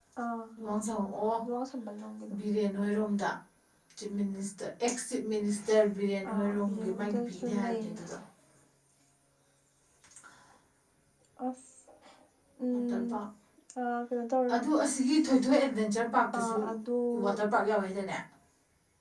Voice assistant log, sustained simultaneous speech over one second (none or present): present